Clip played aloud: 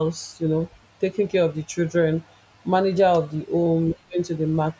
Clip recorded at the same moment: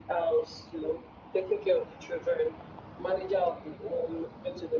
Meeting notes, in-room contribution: none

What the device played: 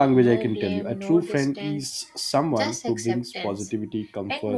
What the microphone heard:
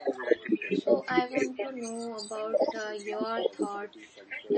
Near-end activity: present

